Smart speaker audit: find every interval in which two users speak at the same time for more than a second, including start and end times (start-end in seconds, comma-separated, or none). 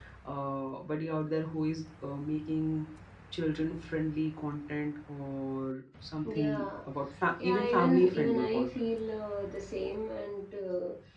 7.4-8.9